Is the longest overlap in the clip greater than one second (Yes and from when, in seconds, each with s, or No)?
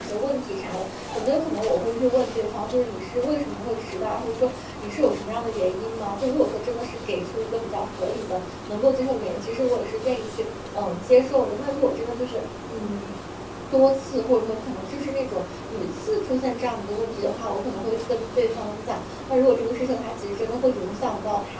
No